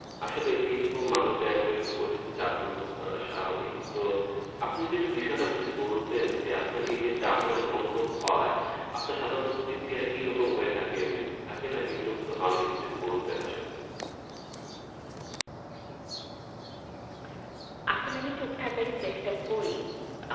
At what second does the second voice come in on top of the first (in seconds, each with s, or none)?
none